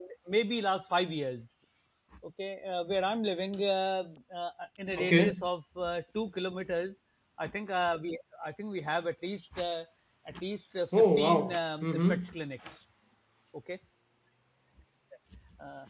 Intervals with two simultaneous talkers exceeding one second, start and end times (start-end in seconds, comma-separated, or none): 11.0-12.2